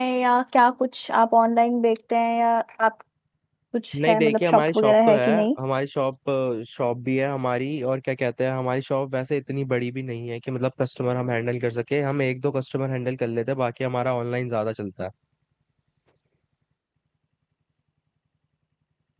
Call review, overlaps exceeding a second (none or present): present